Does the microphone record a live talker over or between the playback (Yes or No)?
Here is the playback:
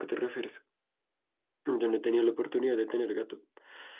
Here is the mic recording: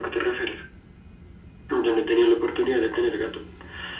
No